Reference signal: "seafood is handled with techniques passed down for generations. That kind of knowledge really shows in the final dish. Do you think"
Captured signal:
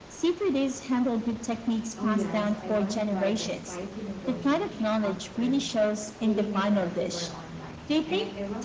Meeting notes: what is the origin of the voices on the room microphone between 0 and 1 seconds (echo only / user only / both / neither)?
echo only